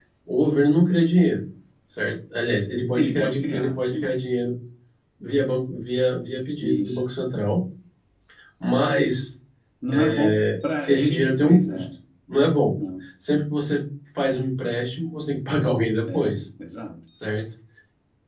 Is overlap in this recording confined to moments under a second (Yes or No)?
No